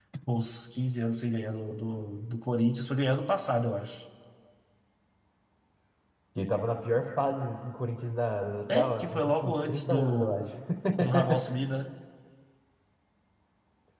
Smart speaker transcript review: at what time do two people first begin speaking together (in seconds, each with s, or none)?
8.7 s